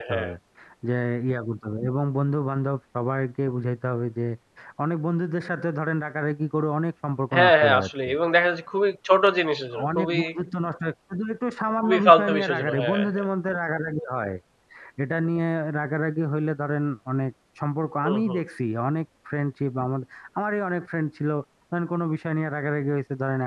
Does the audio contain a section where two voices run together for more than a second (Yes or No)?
Yes